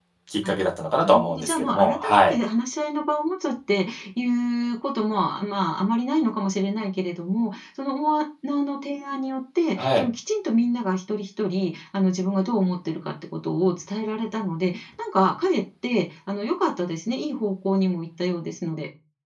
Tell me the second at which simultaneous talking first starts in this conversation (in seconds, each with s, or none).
1.0 s